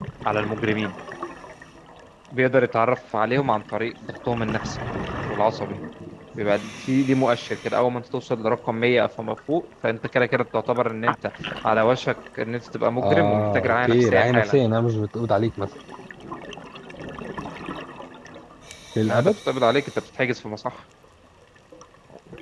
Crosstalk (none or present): present